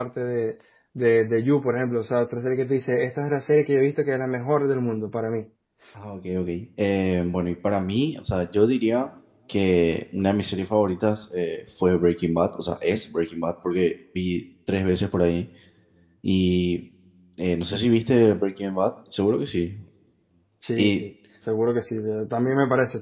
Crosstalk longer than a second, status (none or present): none